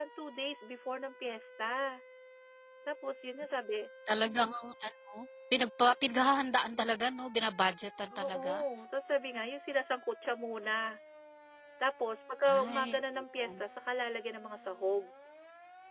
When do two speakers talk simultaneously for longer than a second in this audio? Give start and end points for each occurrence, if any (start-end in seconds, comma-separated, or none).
none